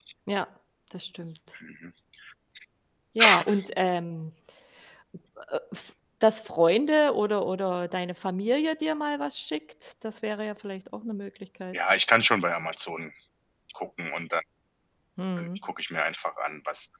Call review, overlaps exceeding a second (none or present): none